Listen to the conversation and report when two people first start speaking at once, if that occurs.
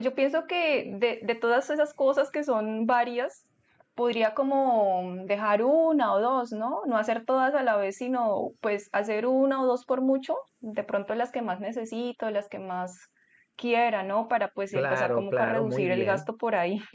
14.7 s

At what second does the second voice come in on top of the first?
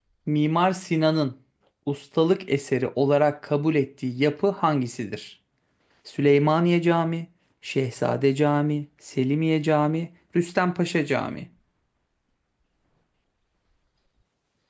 none

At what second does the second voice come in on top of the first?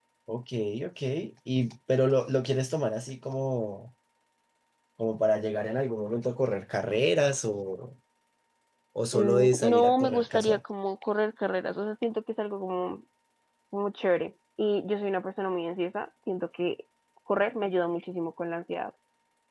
9.1 s

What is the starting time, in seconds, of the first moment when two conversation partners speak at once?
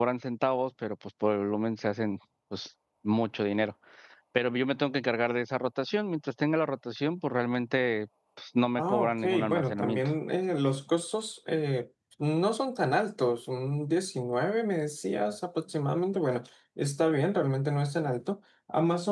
8.8 s

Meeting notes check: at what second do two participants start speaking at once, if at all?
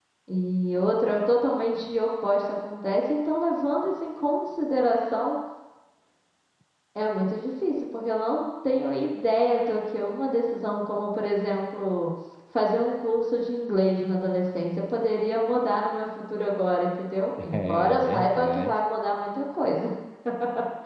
17.4 s

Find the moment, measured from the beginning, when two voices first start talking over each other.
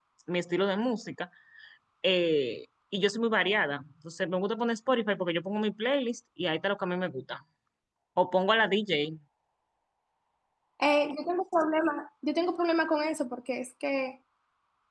none

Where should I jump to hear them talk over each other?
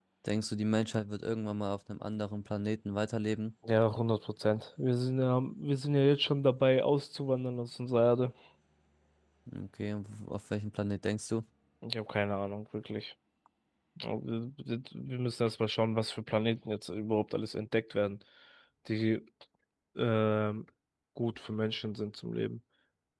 none

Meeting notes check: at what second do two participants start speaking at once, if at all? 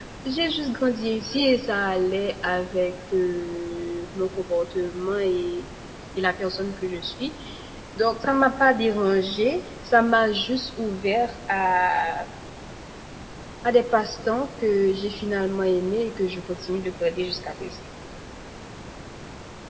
none

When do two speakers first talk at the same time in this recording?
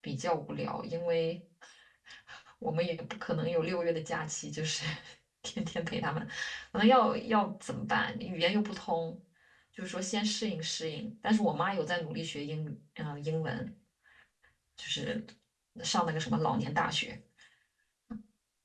none

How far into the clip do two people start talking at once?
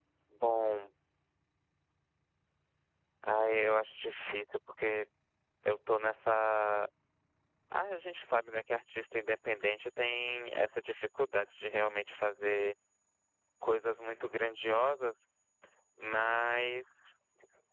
none

